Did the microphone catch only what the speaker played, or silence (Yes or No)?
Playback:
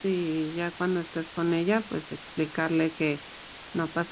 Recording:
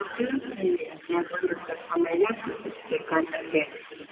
Yes